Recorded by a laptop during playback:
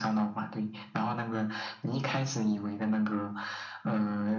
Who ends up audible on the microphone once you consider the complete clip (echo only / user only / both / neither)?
echo only